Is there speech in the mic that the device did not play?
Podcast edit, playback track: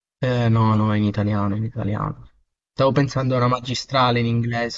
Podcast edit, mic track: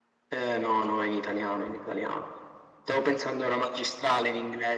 No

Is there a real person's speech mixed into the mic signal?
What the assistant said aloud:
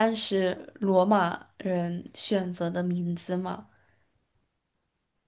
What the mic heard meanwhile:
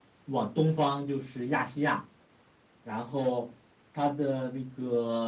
Yes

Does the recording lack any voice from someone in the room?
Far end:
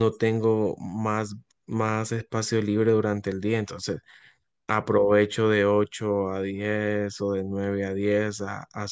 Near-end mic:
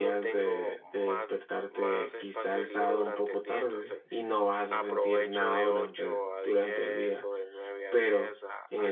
No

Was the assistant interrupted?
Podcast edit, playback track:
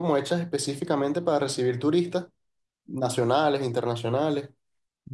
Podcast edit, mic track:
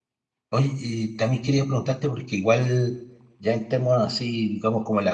Yes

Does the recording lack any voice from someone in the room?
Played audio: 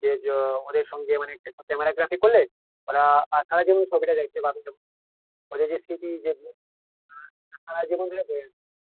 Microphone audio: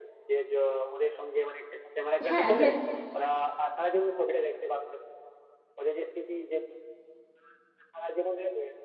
No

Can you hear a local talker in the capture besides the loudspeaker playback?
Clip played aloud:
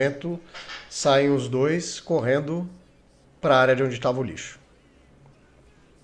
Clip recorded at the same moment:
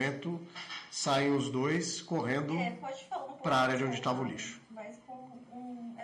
Yes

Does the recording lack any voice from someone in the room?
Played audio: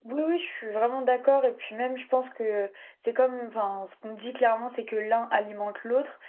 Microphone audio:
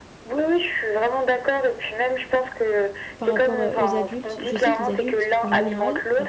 No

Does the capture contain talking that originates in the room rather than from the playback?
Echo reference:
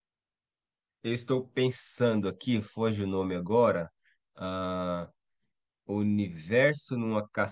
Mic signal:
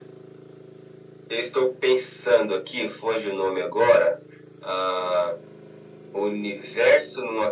No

